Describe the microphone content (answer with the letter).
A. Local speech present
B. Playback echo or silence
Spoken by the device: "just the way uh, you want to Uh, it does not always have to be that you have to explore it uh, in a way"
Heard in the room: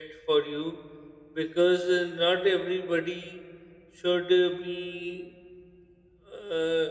A